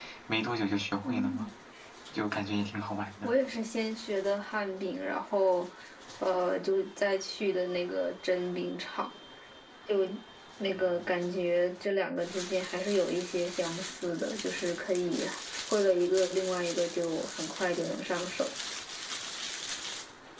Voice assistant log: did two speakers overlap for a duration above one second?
No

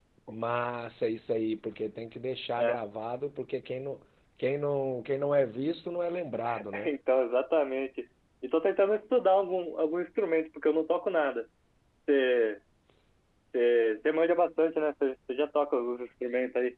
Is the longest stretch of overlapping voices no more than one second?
Yes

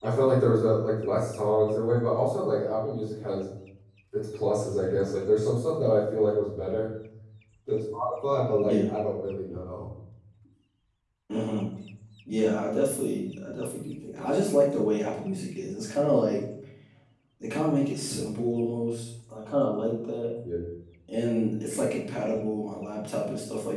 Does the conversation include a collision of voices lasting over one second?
No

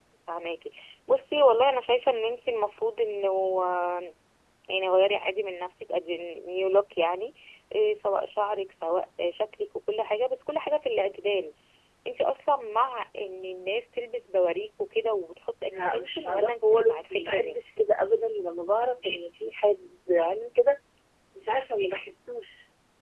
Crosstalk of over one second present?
Yes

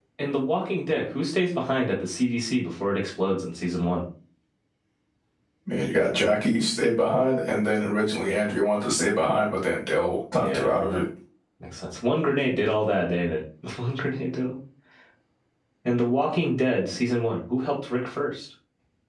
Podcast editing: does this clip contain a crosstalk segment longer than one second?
No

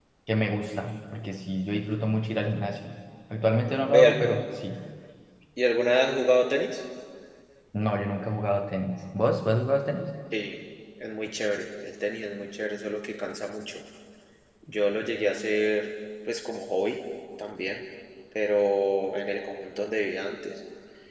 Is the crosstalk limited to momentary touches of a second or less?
Yes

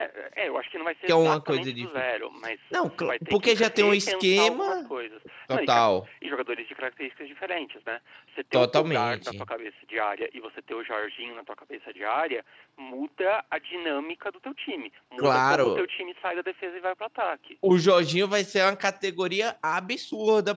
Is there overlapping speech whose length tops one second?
Yes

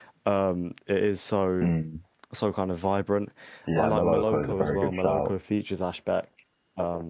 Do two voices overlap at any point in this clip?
Yes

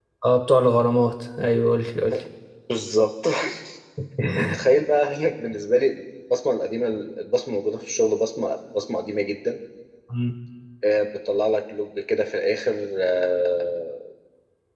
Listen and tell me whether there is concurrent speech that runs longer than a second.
No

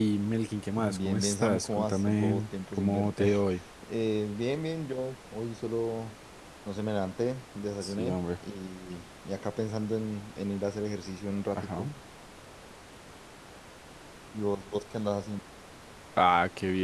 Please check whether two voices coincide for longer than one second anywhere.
Yes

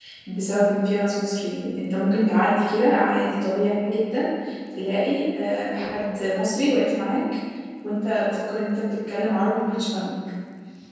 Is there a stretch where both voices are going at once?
No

